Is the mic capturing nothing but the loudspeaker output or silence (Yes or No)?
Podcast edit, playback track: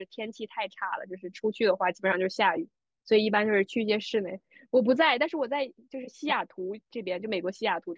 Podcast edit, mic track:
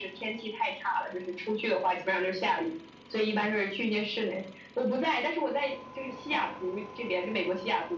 Yes